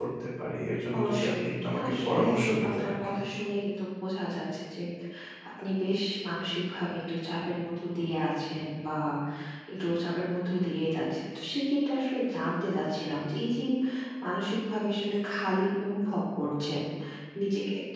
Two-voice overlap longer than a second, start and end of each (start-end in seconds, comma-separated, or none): 1.0-2.2